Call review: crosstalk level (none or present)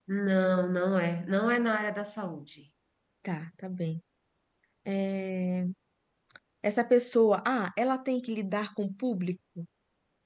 none